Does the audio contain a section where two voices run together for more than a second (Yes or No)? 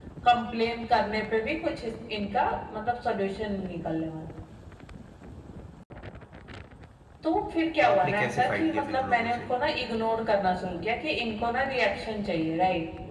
Yes